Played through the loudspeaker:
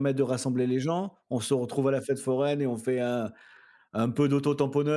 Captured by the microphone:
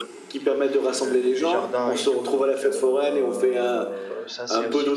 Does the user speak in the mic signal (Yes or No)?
Yes